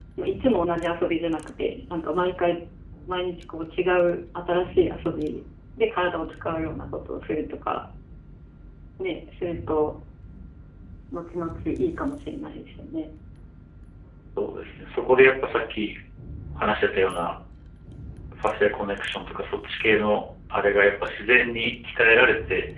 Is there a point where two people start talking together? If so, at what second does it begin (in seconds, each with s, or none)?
none